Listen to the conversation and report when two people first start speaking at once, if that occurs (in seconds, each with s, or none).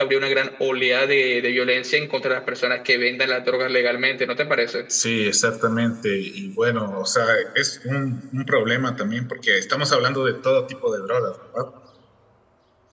none